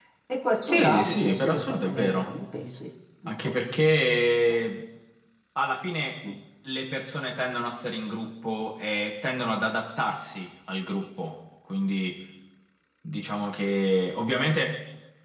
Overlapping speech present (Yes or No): Yes